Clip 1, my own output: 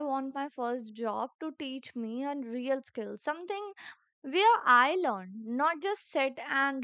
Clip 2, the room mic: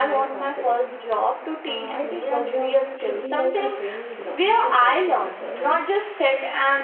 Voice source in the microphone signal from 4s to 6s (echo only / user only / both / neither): both